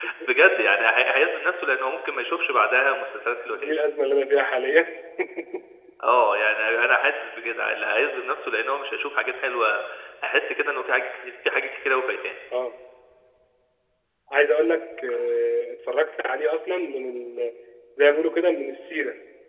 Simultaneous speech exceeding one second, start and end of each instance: none

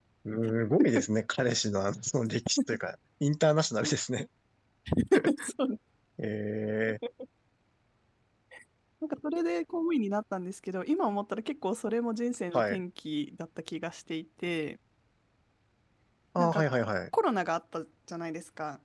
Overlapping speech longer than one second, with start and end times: none

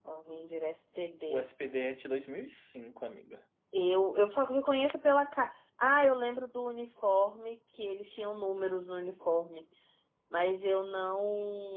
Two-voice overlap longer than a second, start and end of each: none

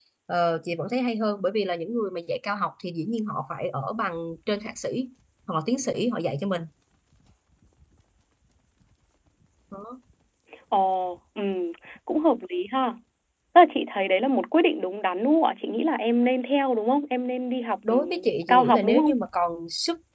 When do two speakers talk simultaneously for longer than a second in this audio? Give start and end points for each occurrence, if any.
17.9-19.2

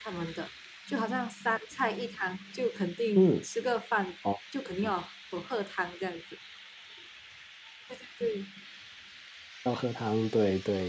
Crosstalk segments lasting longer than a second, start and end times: none

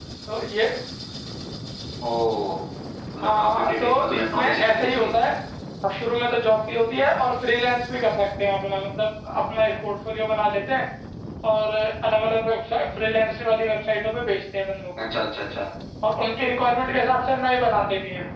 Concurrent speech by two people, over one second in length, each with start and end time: 3.2-5.1

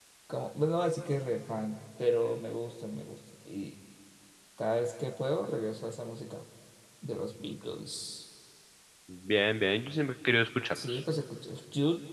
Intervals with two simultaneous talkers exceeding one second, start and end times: none

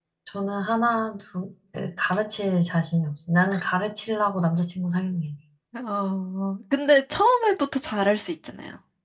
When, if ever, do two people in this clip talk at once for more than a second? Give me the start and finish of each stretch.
none

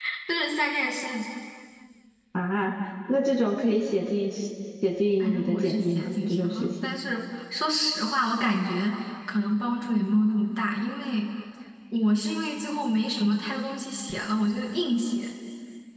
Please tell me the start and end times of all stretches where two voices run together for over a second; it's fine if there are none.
5.2-6.7

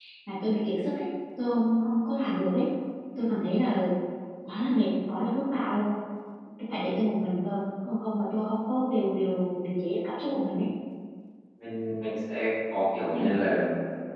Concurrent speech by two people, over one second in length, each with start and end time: none

